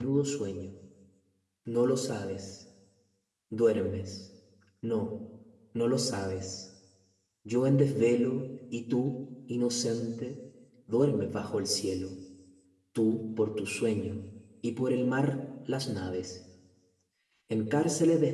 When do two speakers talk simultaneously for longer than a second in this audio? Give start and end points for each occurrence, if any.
none

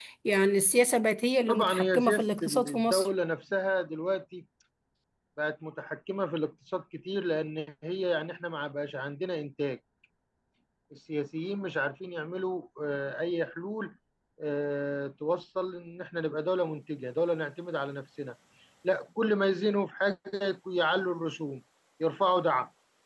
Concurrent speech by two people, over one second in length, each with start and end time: 1.5-3.1

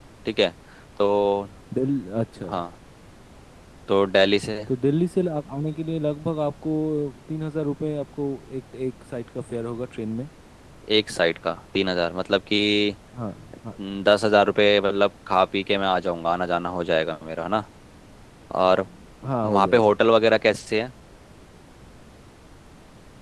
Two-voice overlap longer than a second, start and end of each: none

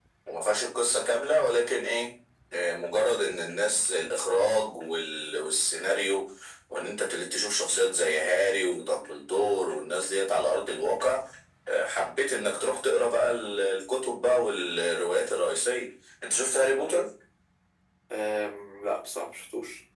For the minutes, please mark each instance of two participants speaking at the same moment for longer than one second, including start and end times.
none

